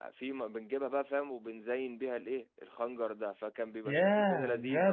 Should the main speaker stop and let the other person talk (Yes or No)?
Yes